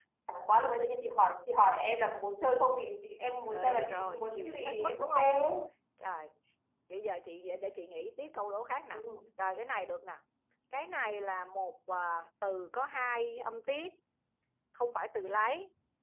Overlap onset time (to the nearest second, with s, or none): 4 s